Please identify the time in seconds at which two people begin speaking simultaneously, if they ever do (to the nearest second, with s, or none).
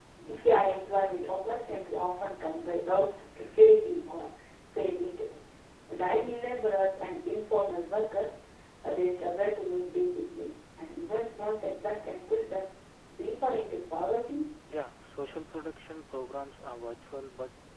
none